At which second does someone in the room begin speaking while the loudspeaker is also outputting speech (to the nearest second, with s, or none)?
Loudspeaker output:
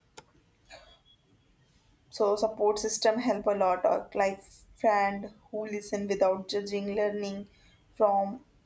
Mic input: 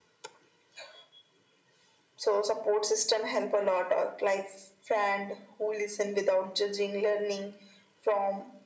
none